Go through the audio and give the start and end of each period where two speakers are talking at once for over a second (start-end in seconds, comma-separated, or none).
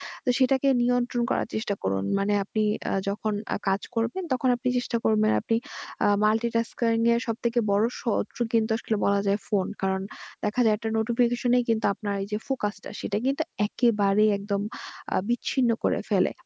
none